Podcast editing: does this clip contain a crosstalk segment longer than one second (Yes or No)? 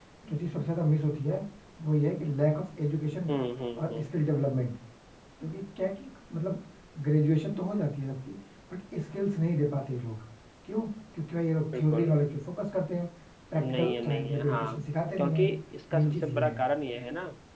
Yes